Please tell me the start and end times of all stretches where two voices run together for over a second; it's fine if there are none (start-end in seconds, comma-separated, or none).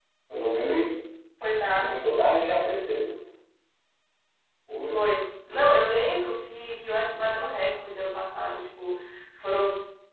none